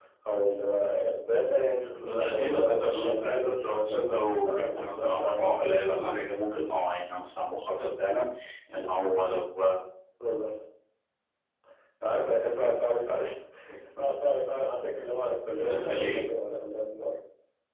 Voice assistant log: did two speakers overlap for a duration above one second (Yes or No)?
Yes